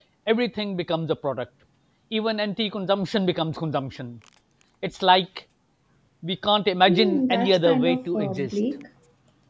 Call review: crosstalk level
present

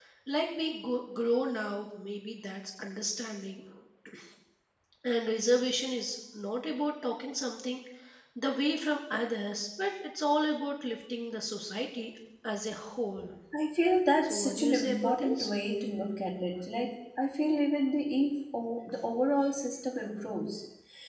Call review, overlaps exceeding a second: present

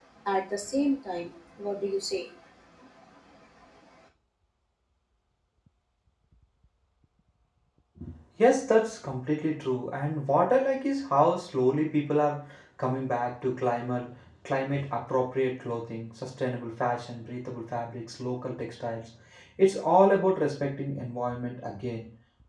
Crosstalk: none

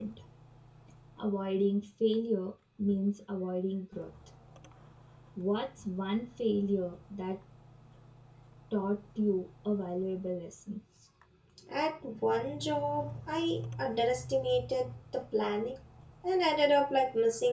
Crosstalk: none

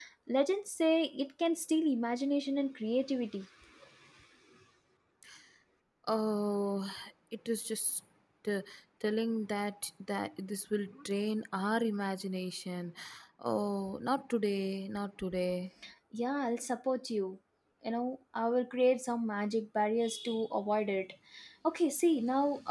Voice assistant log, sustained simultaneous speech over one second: none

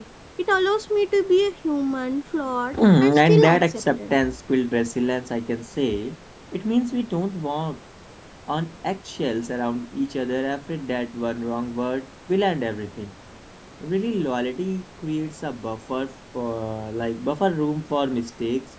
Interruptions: present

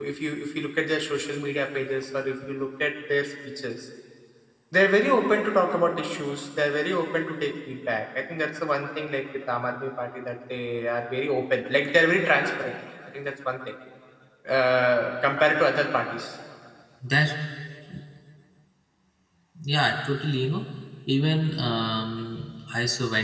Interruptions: none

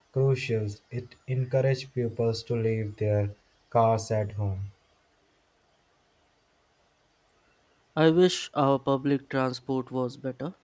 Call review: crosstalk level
none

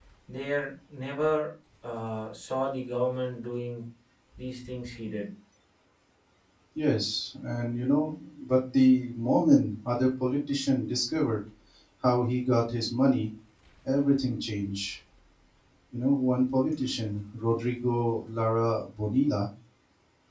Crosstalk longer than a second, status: none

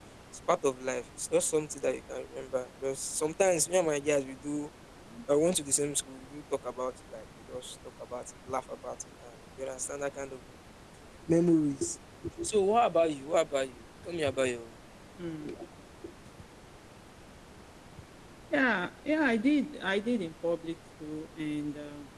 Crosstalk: none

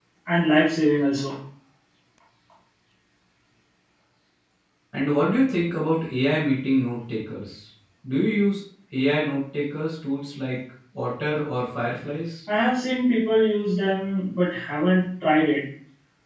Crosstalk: none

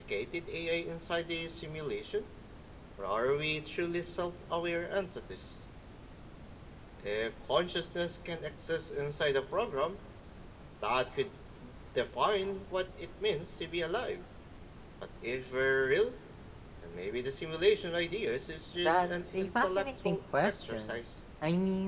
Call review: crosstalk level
present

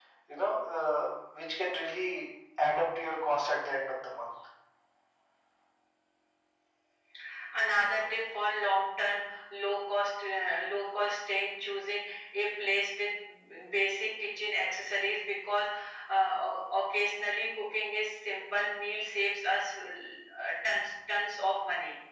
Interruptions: none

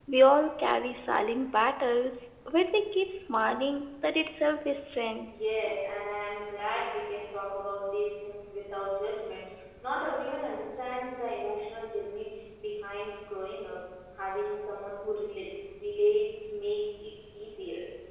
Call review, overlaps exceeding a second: none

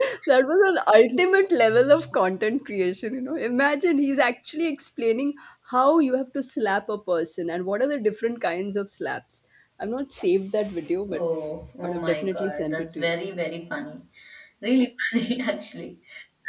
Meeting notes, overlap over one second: present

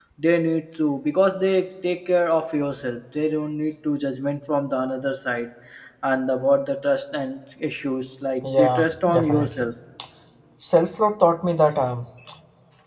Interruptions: present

